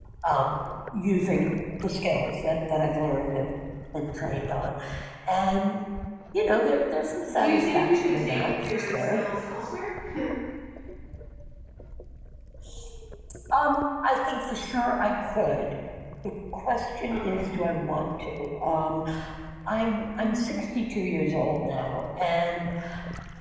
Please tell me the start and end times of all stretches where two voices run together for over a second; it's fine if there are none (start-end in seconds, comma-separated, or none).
7.3-9.2